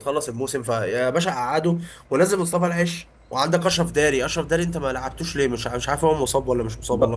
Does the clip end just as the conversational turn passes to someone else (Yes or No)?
Yes